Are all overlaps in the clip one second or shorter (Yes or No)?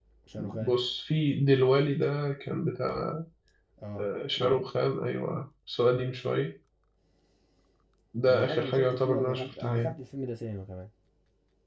No